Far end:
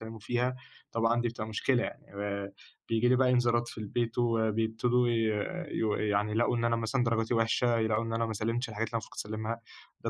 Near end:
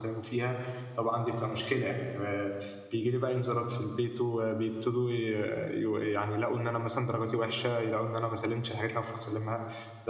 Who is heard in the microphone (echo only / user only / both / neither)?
echo only